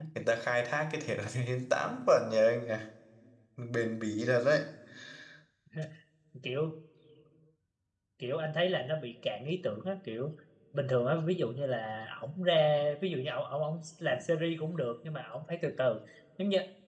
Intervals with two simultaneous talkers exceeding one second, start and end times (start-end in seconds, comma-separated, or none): none